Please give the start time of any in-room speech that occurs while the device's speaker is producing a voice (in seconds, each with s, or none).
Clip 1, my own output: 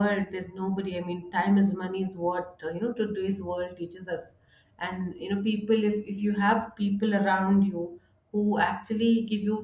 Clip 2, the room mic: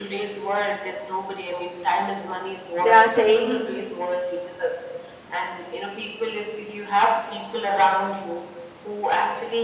2.9 s